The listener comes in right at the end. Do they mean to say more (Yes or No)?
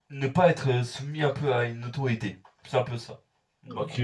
Yes